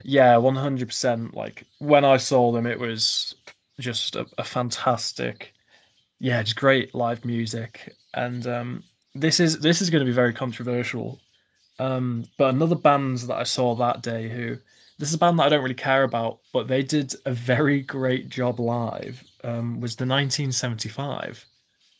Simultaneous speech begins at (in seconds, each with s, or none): none